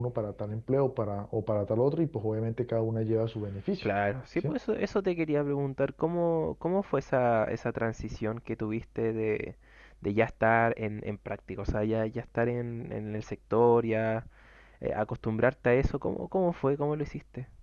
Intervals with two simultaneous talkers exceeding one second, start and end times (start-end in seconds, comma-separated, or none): none